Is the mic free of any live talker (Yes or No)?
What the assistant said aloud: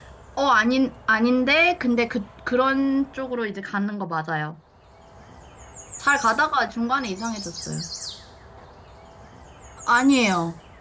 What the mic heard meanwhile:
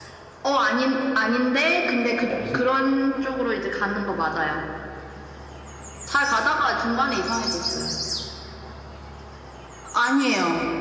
No